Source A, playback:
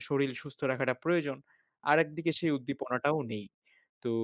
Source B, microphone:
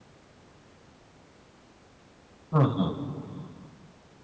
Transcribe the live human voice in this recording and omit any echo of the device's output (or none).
হু, হু।